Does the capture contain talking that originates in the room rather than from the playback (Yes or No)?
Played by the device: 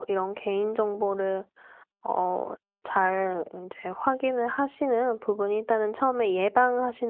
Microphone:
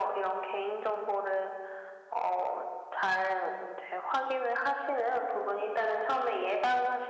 No